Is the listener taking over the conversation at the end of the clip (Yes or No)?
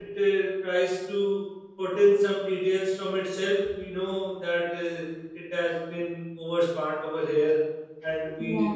No